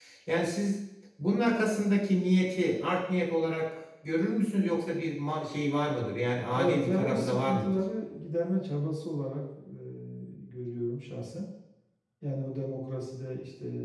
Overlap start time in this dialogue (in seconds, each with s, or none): 6.5 s